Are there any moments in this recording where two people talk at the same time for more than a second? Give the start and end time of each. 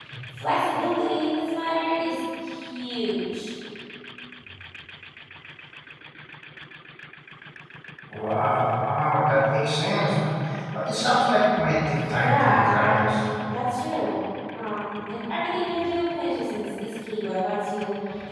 11.8-13.2

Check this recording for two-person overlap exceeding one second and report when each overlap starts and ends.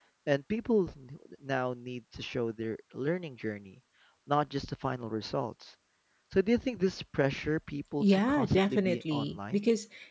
8.0-9.6

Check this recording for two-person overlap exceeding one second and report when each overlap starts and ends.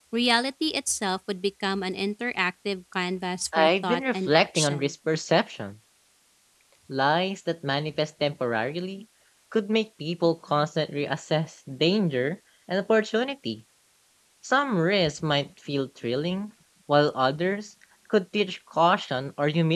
3.6-4.9

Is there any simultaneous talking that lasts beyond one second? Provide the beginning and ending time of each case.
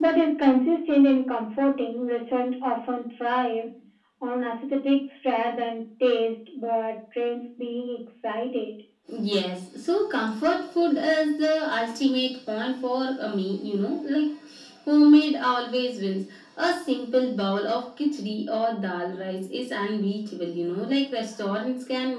none

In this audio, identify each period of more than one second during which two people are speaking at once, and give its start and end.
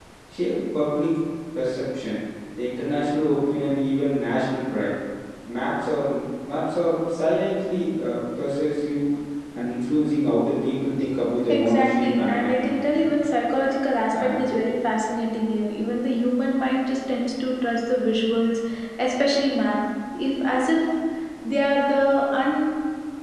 11.5-13.0

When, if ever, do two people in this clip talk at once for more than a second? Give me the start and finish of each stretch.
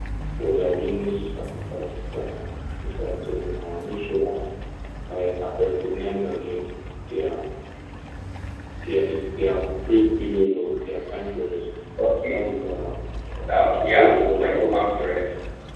13.4-14.7

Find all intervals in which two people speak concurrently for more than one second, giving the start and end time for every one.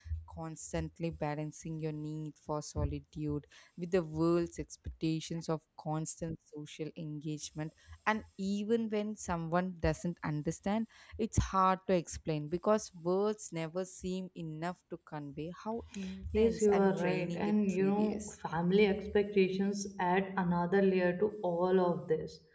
16.4-18.3

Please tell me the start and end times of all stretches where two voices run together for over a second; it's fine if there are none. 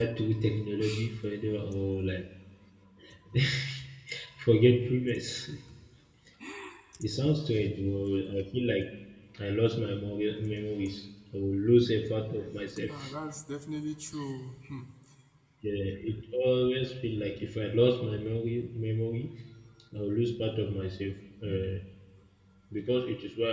none

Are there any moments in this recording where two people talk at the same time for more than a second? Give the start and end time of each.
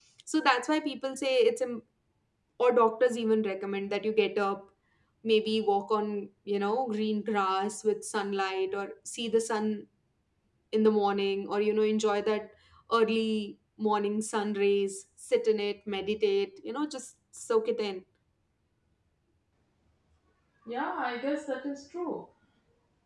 none

